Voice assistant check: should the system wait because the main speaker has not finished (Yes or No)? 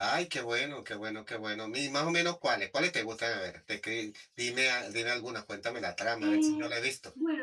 No